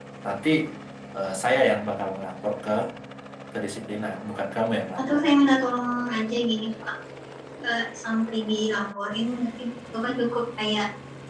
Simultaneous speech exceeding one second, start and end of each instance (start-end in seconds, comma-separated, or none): none